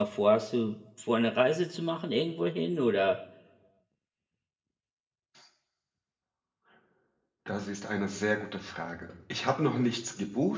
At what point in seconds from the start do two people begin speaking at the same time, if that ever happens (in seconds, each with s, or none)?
none